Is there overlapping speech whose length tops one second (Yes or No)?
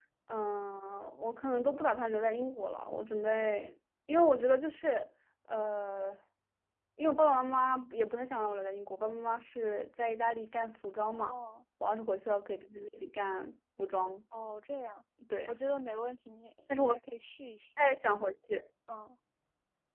No